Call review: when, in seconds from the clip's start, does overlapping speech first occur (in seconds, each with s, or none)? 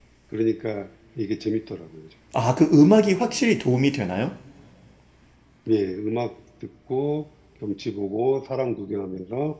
none